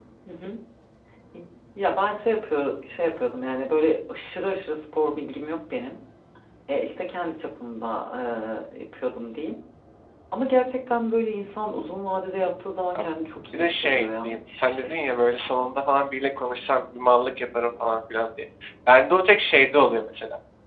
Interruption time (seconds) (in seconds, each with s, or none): 13.5 s